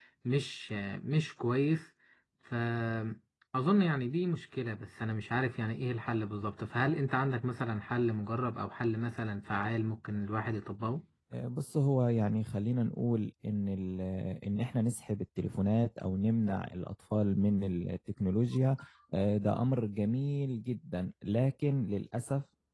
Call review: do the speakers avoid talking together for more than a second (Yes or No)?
Yes